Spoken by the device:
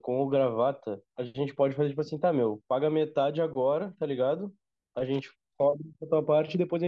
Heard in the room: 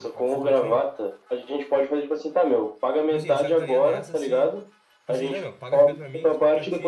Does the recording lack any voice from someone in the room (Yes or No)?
No